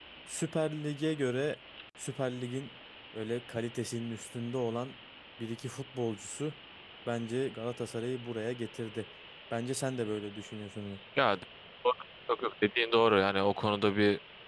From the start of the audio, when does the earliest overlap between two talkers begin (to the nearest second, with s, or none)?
none